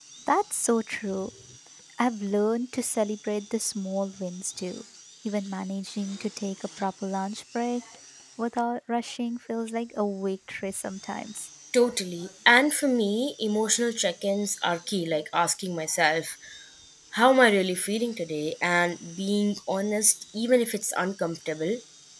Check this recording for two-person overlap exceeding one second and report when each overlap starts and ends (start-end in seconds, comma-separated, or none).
none